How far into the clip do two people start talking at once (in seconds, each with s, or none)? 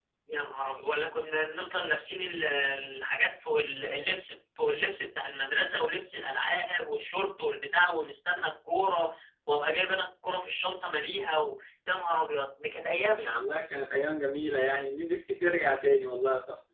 none